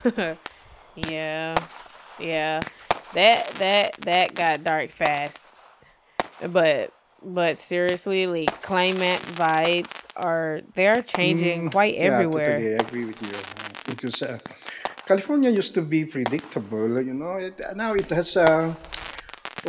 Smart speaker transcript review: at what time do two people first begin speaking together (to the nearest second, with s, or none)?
11 s